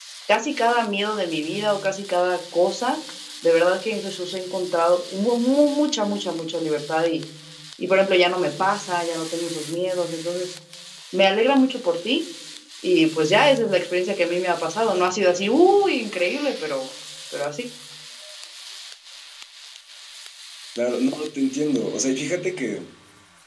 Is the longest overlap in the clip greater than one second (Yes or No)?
No